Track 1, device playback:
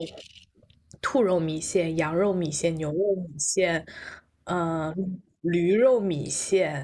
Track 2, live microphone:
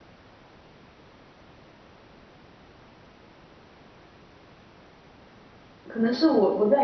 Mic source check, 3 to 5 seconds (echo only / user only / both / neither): neither